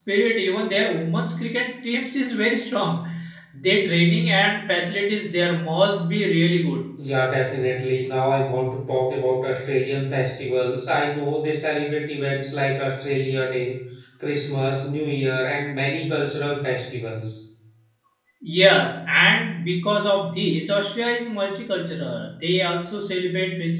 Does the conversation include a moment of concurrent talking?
No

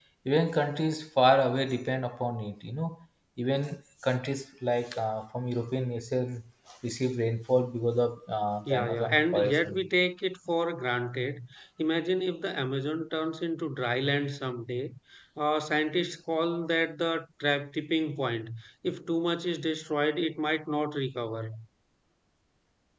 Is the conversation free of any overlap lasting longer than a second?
No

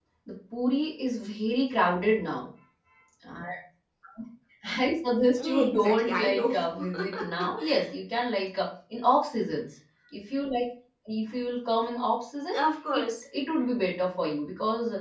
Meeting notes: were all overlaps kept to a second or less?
No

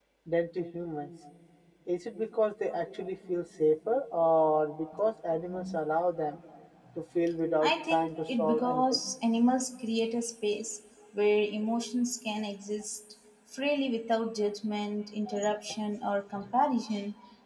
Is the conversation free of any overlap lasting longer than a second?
No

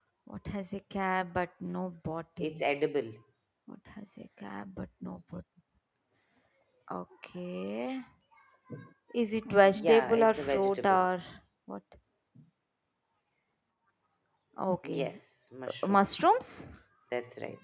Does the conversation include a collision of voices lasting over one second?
Yes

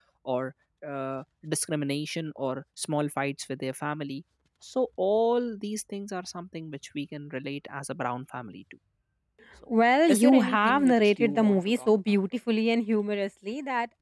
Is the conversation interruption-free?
No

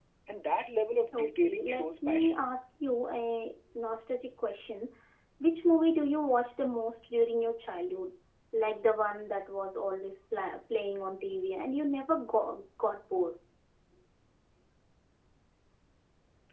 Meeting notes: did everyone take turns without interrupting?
No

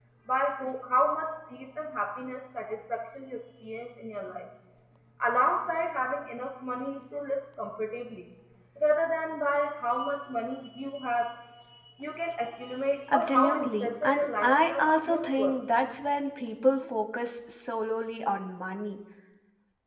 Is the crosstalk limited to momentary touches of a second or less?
No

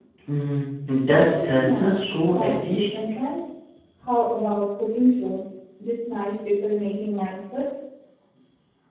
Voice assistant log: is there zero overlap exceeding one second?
No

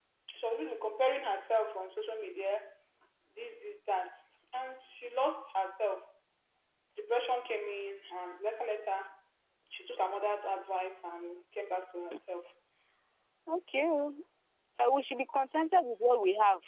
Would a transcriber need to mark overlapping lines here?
No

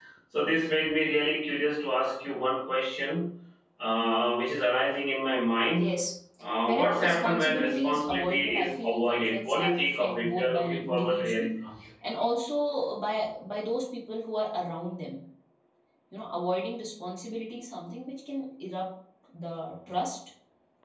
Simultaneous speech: Yes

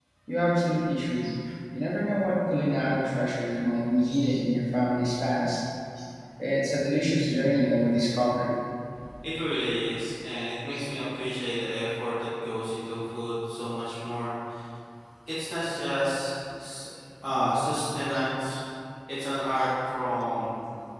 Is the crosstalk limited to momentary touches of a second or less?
Yes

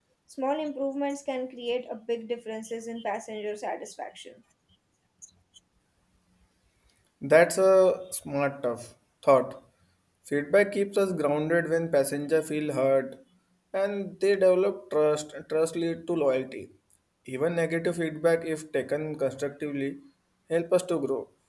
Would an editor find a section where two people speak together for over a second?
No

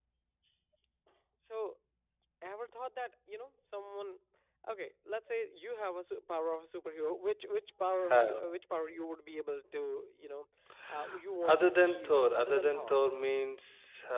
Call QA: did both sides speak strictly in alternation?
No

